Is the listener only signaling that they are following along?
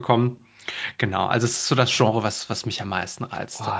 No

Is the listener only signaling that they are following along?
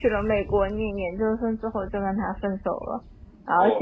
Yes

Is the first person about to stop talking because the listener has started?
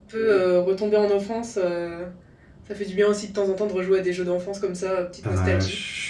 Yes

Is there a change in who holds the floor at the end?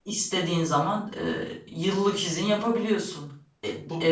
No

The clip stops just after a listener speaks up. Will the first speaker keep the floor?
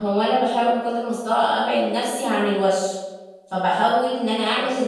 Yes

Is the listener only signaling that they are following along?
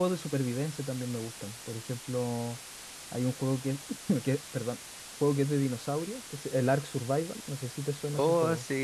No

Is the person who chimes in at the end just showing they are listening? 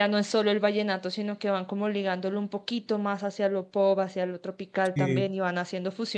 Yes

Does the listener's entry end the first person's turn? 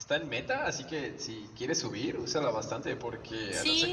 Yes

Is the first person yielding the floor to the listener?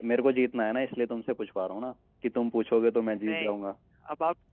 Yes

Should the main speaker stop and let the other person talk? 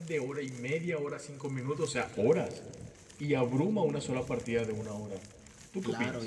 Yes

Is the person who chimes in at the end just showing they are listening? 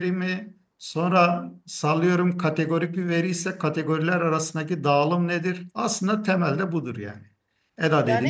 No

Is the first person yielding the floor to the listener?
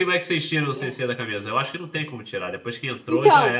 Yes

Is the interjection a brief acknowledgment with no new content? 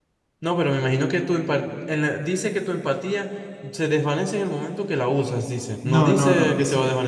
No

